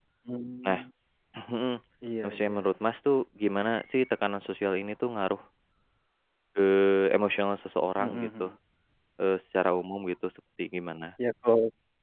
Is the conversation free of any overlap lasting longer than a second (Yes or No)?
Yes